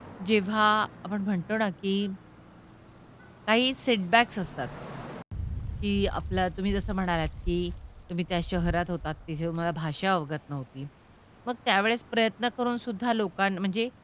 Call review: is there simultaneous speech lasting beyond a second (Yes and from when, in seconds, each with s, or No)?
No